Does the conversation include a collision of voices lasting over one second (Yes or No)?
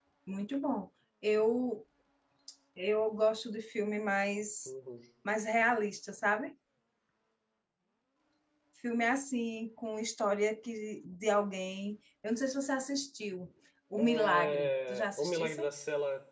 Yes